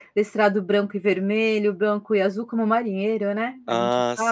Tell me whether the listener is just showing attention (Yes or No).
No